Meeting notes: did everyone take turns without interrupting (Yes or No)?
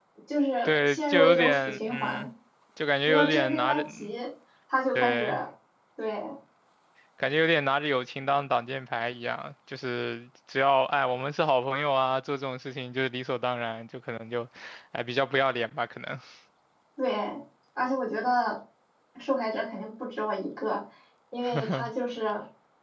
No